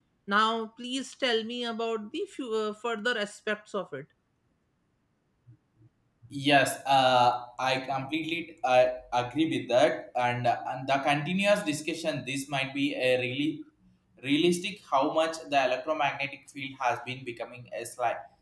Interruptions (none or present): none